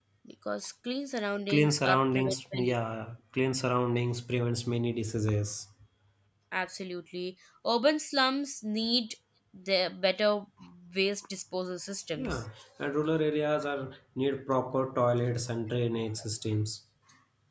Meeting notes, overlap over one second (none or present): present